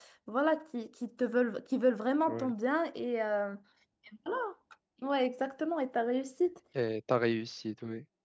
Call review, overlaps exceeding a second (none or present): none